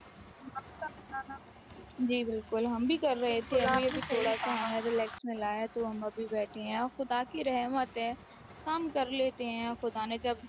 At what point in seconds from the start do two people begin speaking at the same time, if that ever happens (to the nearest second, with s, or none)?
3 s